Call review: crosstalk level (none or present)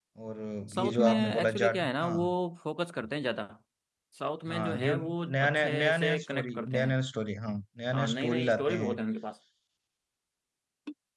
present